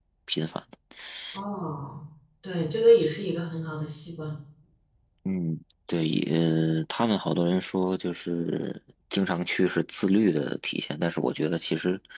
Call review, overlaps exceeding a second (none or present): none